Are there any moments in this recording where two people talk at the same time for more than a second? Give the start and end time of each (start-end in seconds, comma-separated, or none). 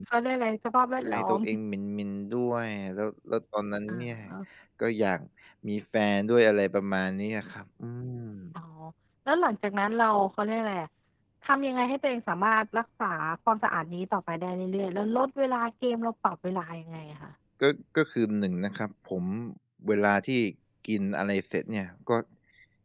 none